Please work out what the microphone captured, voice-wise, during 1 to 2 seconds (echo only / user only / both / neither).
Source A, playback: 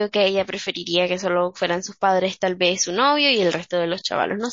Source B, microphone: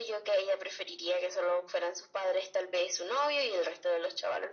echo only